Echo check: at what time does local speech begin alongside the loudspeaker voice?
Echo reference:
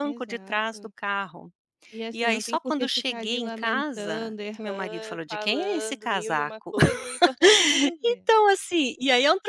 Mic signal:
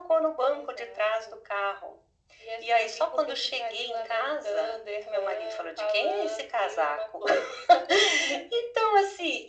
none

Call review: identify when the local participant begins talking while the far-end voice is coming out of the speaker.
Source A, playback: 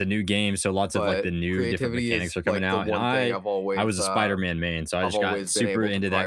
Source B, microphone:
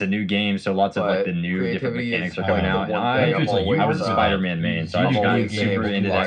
2.4 s

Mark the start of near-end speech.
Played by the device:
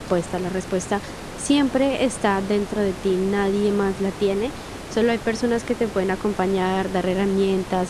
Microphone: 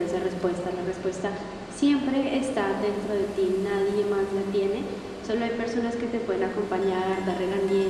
none

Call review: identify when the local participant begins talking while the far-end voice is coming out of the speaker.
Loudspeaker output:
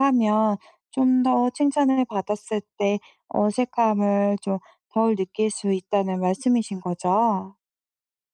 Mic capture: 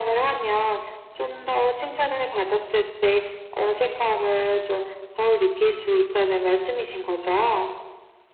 none

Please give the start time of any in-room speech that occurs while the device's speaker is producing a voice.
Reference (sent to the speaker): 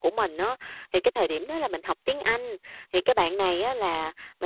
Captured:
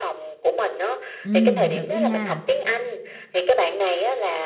1.2 s

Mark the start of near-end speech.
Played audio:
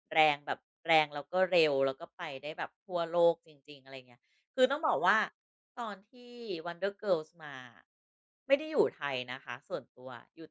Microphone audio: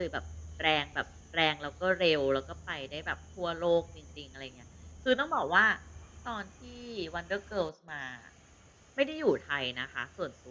none

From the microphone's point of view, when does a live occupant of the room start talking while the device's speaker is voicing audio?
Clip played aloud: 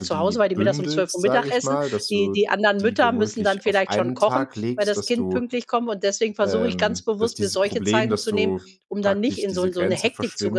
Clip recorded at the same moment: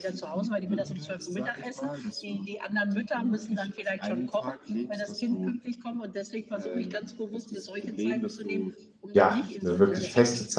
9.1 s

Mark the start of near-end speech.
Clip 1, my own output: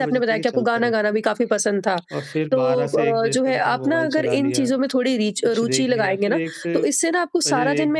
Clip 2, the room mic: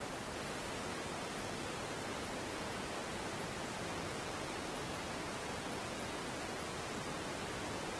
none

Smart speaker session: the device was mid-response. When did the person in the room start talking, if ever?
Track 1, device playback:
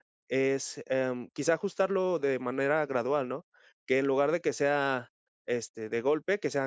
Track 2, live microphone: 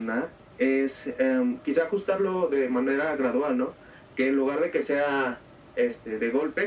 none

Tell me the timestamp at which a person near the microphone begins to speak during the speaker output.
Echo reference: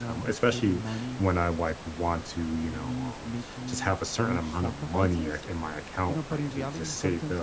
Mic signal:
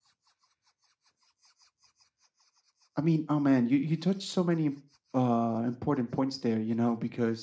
3.0 s

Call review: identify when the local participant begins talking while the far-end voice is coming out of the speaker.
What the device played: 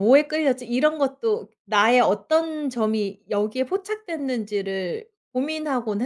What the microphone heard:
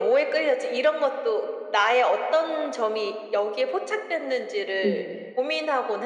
4.8 s

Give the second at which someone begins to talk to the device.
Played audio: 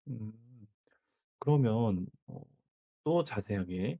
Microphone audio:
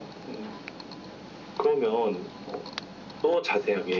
none

